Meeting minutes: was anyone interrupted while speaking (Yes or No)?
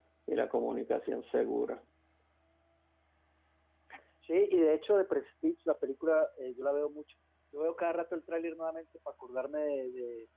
No